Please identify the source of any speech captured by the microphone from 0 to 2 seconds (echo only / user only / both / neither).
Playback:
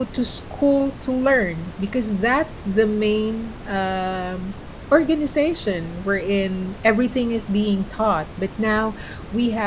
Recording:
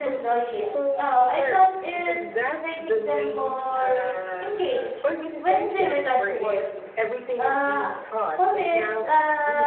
both